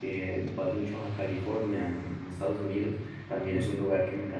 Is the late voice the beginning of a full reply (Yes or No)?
No